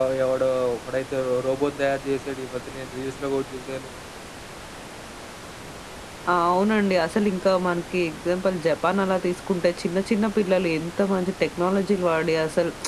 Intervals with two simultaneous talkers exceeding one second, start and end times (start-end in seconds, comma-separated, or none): none